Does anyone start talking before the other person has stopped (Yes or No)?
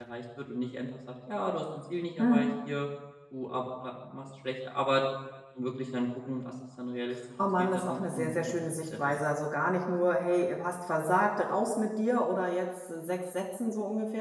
Yes